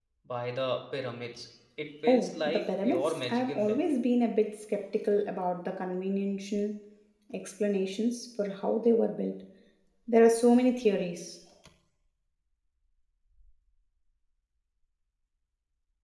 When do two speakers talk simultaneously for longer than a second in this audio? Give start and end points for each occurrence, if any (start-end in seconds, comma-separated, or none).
2.1-3.8